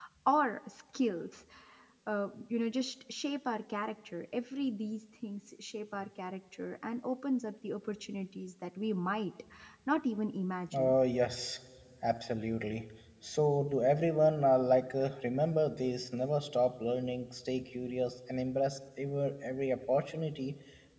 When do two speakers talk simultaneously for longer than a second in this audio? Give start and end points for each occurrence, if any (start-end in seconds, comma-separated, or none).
none